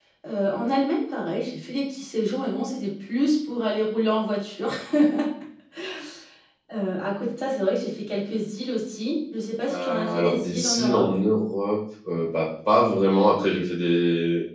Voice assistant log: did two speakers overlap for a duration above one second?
Yes, from 9.7 s

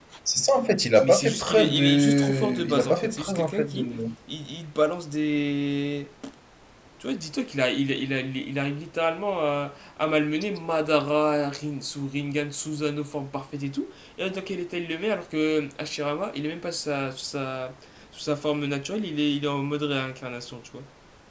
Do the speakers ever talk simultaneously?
Yes, from 1.0 s

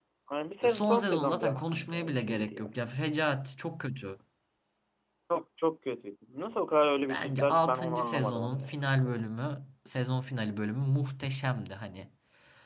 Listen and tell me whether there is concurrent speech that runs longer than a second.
Yes, from 0.6 s

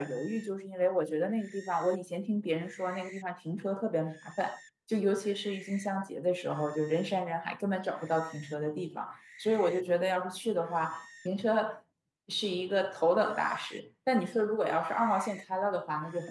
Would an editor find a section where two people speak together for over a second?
No

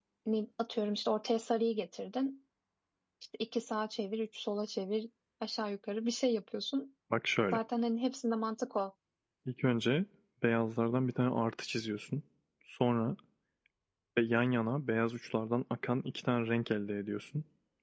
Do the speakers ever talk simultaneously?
No

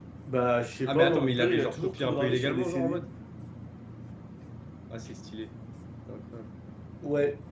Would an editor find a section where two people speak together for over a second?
Yes, from 0.9 s

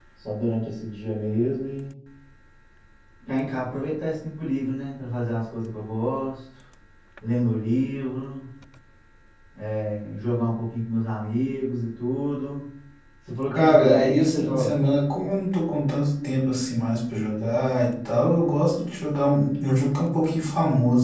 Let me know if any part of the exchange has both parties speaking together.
Yes, from 13.5 s

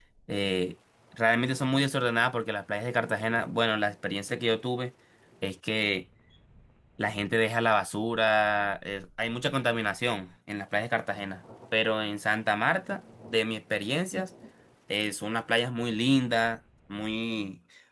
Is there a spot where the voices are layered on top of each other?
No

